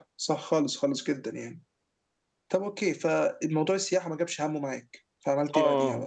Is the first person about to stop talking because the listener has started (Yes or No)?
Yes